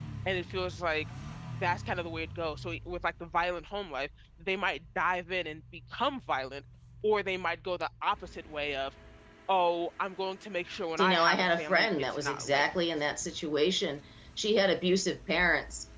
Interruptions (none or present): present